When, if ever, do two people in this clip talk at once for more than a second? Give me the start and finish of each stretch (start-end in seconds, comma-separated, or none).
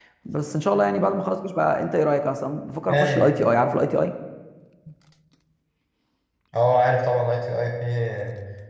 none